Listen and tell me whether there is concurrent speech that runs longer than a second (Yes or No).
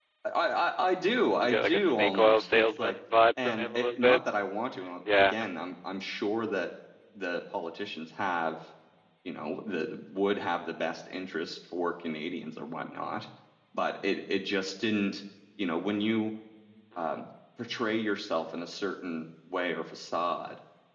Yes